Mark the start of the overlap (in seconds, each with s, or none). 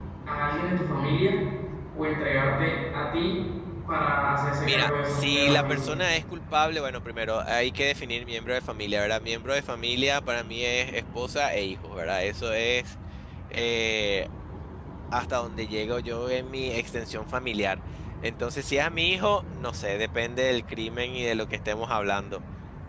4.6 s